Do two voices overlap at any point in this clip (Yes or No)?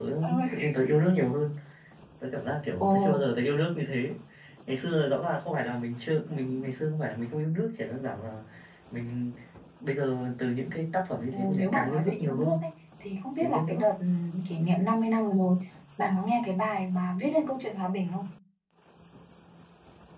Yes